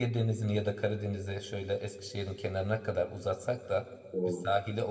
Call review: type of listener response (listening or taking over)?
listening